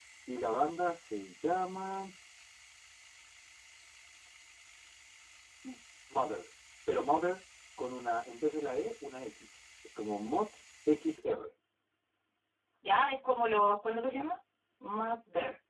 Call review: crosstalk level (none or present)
none